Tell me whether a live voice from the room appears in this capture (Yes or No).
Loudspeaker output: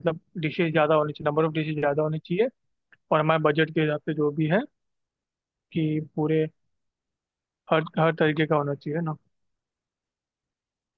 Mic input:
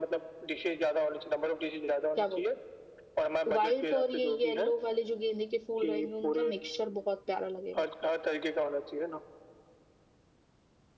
Yes